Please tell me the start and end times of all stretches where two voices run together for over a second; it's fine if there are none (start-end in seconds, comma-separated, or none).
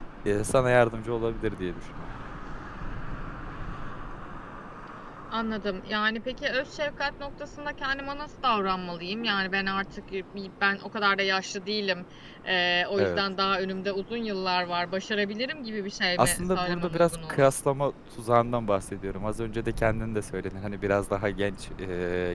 16.2-17.5